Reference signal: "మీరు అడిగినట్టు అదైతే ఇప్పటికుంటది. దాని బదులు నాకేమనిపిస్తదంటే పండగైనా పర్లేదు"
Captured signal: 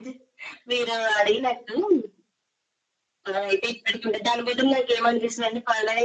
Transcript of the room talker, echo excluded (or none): none